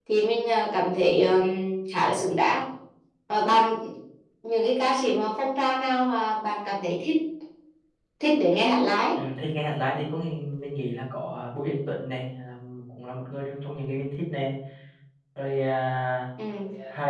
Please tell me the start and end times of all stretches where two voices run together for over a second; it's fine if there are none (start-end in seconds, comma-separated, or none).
none